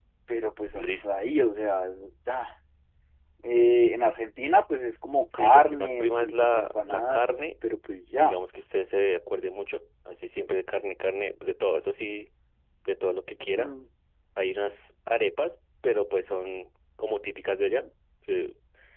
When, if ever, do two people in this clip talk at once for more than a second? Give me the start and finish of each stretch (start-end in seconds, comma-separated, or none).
5.3-7.5